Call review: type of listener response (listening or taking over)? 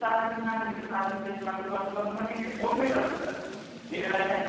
listening